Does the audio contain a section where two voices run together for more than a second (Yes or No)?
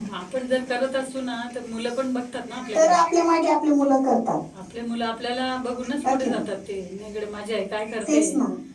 No